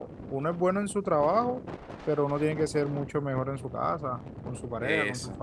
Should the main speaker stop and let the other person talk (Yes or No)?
Yes